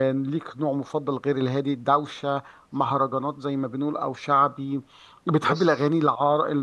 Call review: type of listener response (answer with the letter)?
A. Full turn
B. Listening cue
B